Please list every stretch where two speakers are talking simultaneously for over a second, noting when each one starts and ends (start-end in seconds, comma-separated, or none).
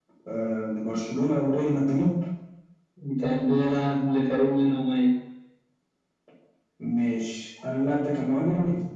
none